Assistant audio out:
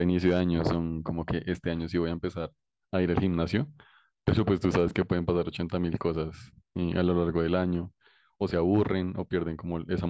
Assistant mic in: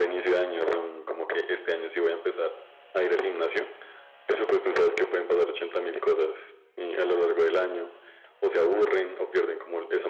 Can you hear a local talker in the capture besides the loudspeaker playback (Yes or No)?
No